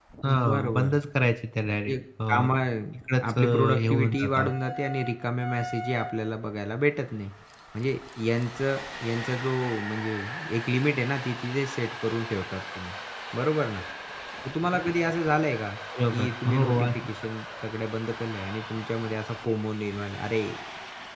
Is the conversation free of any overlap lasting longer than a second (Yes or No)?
No